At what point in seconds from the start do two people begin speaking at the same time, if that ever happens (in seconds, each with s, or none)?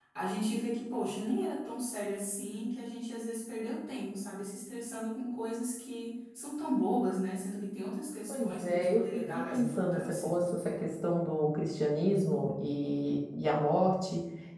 8.3 s